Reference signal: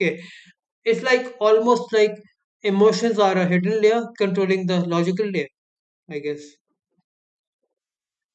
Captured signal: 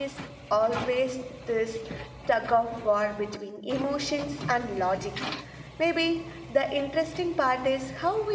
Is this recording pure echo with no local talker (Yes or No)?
No